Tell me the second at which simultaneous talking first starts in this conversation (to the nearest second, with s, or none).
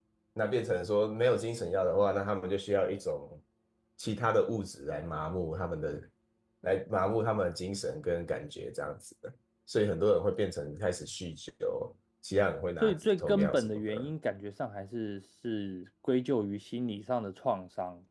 13 s